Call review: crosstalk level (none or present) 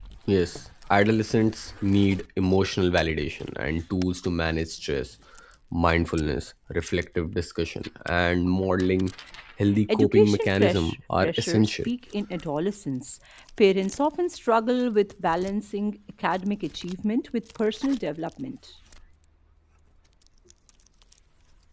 present